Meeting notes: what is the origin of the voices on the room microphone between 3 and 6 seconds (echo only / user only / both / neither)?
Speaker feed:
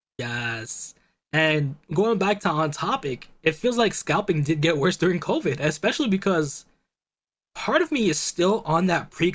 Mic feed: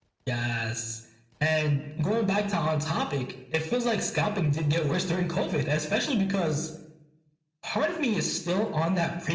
echo only